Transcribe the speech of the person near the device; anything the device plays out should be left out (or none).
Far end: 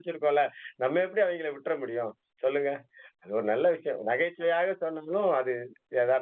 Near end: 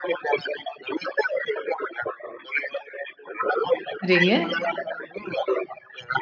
சரிங்க.